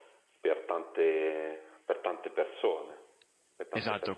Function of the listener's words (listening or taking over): taking over